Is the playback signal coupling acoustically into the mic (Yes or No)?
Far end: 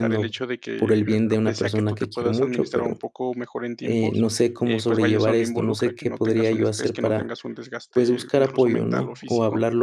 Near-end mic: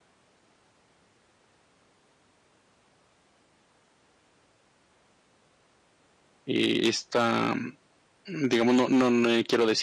No